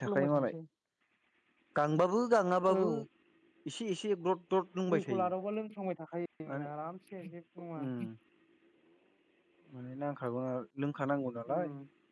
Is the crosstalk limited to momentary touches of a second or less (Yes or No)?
Yes